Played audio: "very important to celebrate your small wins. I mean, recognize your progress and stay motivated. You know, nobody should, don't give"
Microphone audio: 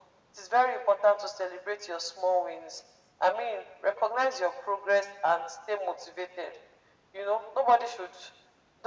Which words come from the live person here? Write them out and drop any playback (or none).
none